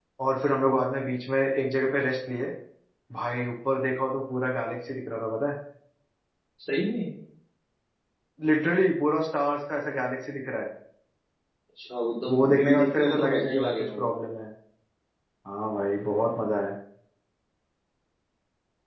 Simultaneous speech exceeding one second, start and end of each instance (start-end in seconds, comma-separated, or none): 12.3-14.1